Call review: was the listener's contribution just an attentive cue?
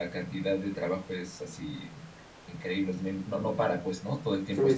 No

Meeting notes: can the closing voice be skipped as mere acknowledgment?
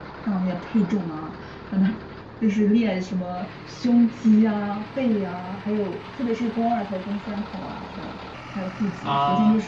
Yes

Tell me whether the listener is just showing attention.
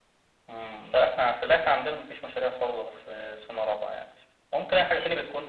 Yes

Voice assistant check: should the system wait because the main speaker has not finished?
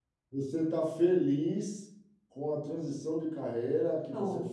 Yes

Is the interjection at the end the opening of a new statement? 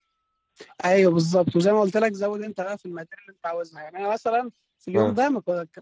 No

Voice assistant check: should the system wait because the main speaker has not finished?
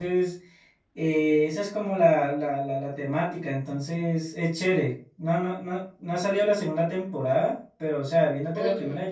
Yes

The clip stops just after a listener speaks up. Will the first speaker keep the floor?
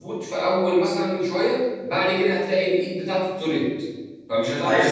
No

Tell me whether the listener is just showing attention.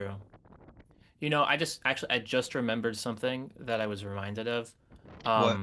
Yes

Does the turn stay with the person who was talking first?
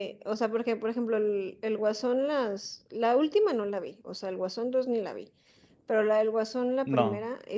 Yes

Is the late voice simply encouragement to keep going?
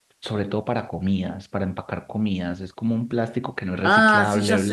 No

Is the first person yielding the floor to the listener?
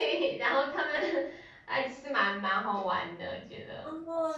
Yes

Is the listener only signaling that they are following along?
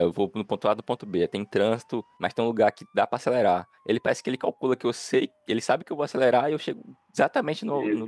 No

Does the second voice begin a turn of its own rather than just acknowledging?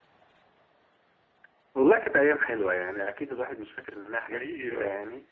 No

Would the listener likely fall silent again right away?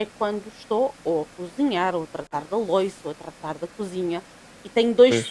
Yes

